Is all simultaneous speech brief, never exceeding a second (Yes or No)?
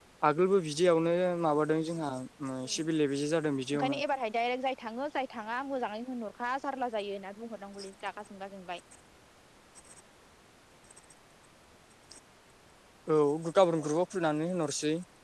Yes